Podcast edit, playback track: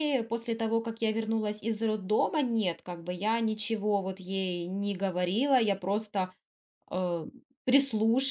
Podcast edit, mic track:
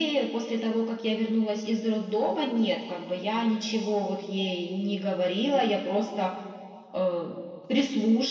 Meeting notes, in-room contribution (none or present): none